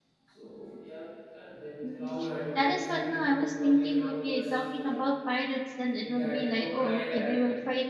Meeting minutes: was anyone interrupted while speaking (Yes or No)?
Yes